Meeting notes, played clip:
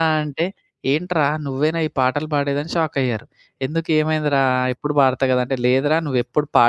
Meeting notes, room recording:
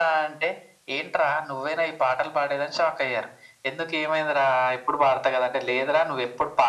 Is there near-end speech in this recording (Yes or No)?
No